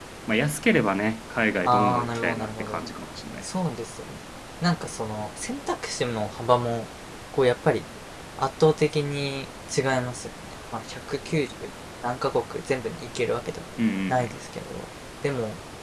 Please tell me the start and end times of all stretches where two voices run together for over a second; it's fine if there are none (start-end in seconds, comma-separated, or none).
1.6-2.9